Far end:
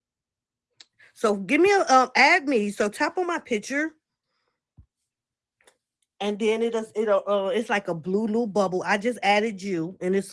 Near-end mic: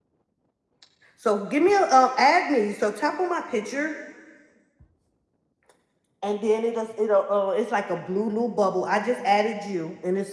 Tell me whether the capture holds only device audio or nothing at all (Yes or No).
Yes